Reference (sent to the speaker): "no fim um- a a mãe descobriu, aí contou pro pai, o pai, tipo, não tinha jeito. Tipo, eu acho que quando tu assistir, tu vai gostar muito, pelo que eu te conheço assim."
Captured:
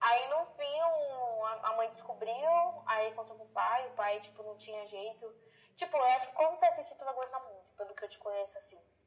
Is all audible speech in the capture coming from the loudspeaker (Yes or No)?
Yes